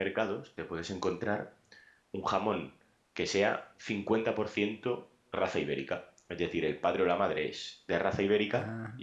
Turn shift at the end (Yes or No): No